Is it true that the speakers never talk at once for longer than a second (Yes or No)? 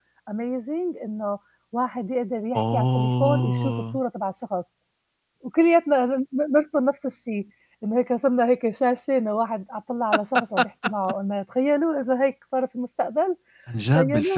No